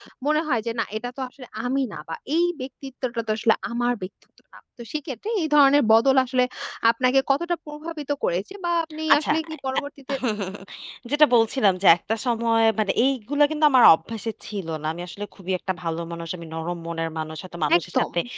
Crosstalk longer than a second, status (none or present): none